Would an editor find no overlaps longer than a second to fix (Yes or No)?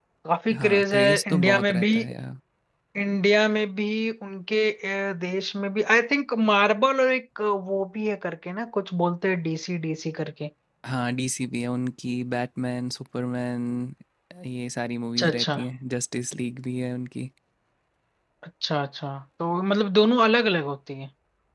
No